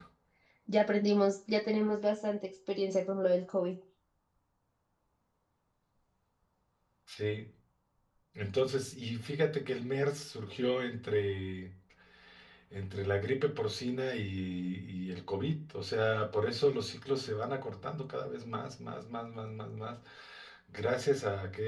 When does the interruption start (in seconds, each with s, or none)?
none